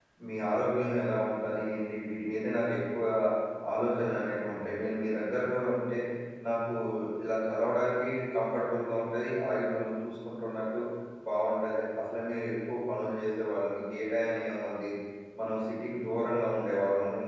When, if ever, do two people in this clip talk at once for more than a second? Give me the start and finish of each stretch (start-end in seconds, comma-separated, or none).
none